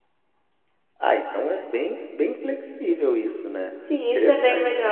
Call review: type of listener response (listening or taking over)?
taking over